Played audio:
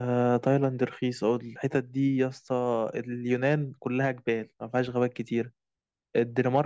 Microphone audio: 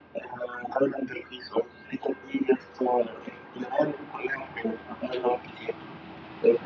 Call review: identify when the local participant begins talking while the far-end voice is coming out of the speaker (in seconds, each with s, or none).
none